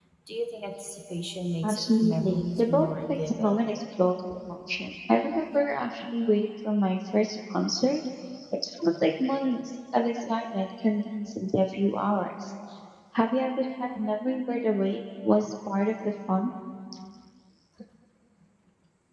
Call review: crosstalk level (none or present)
present